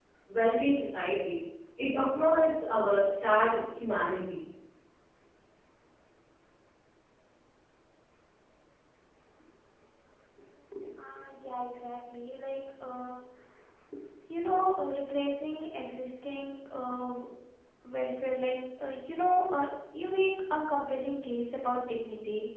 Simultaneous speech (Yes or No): No